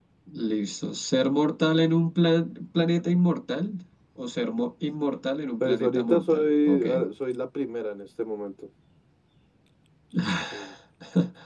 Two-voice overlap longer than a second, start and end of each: 5.6-6.8

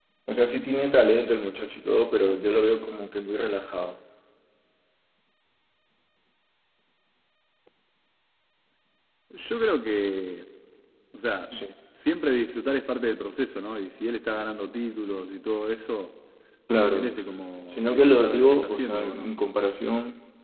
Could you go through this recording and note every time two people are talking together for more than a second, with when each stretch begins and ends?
17.7-19.3

